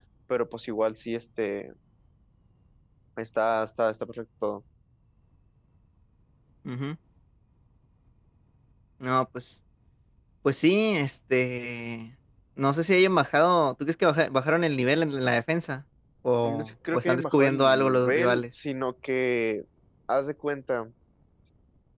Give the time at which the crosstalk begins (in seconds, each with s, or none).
16.4 s